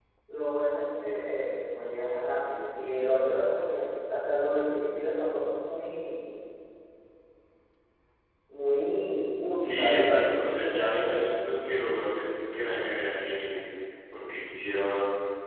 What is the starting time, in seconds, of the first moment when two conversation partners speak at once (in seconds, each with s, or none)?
9.6 s